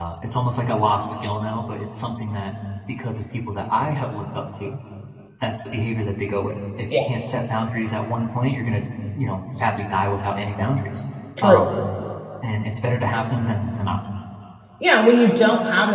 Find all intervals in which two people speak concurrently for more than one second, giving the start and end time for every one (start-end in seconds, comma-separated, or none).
none